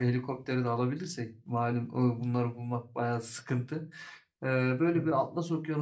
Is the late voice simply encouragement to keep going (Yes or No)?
Yes